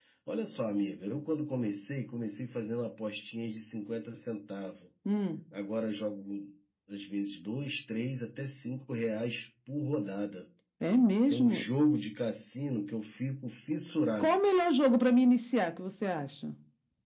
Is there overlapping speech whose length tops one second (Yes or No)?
No